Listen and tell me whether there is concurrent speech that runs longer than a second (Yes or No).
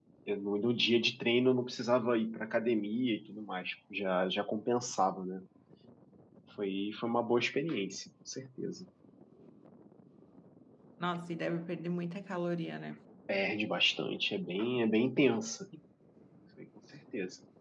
No